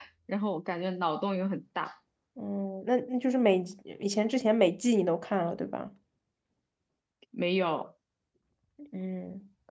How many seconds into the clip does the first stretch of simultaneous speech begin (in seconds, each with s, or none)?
none